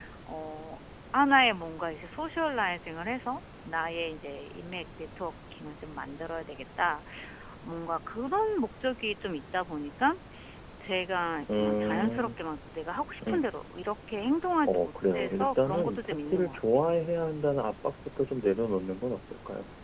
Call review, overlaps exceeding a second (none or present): present